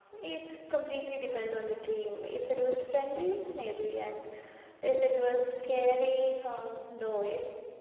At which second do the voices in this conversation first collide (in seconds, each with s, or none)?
none